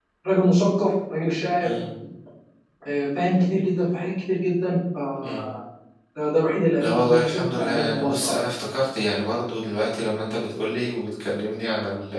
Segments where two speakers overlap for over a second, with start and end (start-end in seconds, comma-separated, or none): 6.8-8.3